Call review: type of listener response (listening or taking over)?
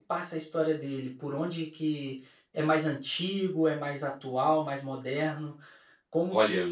listening